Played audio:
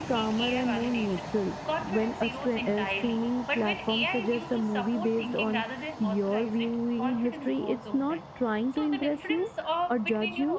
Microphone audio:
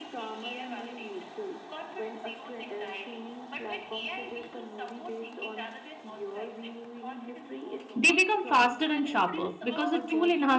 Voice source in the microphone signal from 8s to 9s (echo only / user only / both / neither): both